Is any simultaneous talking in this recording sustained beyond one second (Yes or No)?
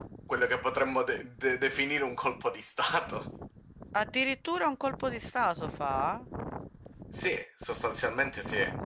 No